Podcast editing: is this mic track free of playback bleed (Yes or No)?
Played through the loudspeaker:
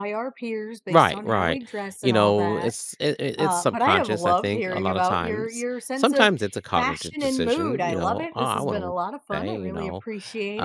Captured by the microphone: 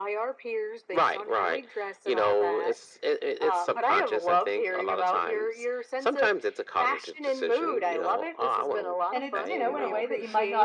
No